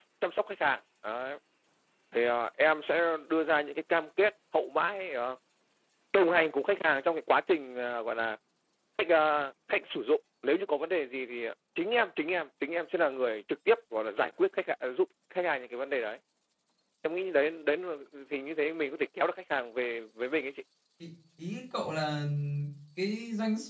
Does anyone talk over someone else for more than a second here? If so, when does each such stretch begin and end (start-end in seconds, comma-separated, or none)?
none